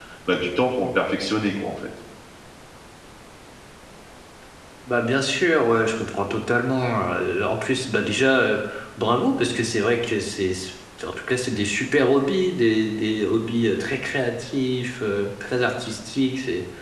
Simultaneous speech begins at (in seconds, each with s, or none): none